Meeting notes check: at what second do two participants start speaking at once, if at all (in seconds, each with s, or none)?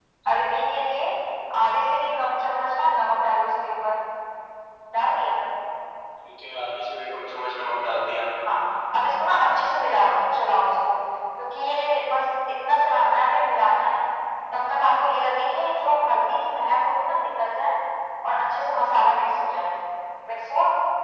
none